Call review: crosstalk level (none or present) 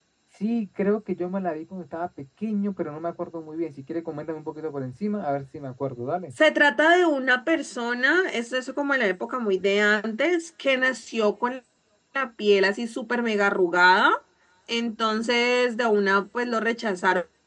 none